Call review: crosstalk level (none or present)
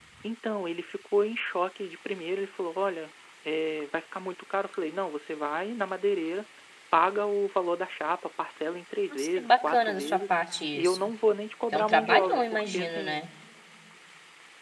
present